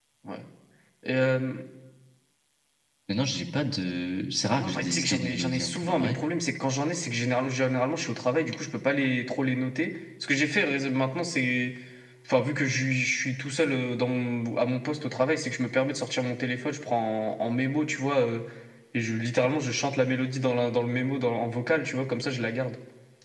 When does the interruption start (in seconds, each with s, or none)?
4.6 s